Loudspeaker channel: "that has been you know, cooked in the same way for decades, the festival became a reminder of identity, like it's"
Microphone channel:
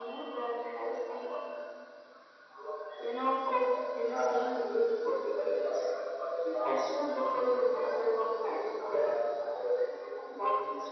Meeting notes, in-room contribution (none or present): none